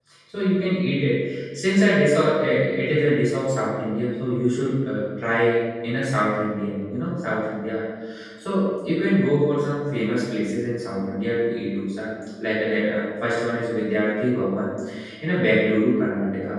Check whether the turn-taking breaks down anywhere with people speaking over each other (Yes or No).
No